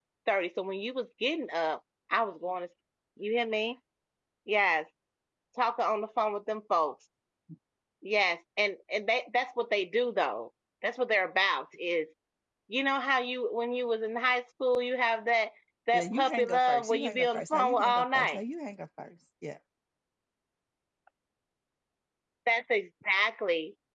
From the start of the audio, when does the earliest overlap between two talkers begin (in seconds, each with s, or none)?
15.9 s